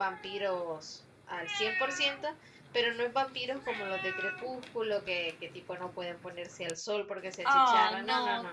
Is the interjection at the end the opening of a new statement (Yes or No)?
Yes